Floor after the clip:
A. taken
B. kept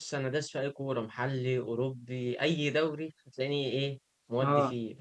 B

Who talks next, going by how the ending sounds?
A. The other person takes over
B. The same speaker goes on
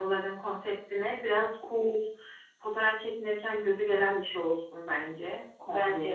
B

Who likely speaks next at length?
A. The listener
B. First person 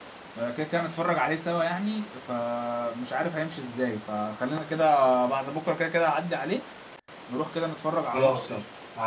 A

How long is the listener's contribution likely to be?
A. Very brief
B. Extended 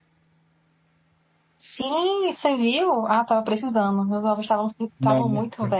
A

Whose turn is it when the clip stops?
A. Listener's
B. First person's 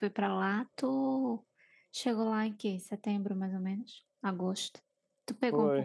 A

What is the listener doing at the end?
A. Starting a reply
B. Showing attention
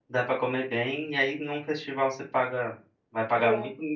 B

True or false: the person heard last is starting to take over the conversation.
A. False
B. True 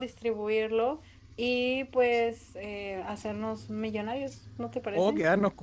B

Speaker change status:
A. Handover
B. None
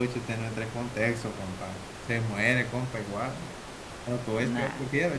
B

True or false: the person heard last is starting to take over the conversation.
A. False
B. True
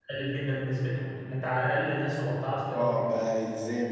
B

